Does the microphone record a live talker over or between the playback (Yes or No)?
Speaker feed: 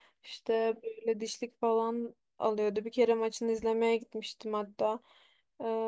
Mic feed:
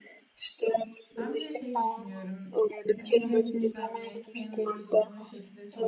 Yes